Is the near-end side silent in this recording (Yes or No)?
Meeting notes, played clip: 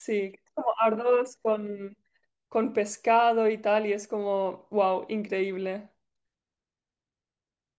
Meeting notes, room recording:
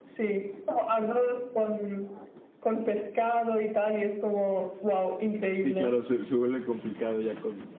No